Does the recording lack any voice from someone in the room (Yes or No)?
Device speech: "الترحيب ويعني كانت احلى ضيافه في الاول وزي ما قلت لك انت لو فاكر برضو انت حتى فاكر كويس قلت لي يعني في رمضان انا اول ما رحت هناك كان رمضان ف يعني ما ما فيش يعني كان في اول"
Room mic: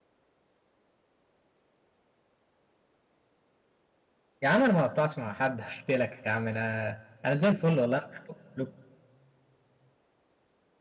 No